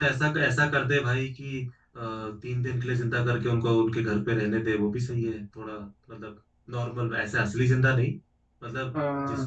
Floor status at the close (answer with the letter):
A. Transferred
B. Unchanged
B